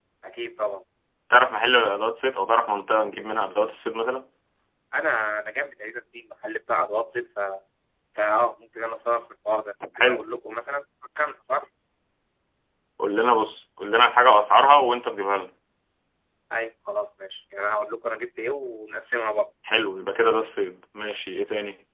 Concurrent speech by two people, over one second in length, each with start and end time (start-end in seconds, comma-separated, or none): none